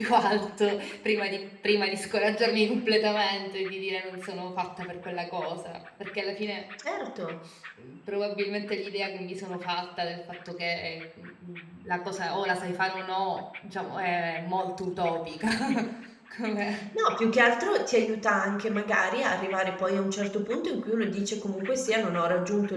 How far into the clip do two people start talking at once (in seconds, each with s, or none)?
none